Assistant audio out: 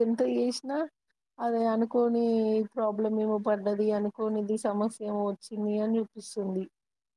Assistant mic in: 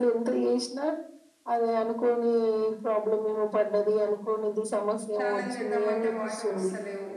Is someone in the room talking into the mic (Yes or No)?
Yes